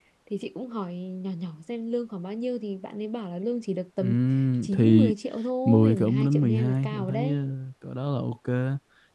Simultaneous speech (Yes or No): Yes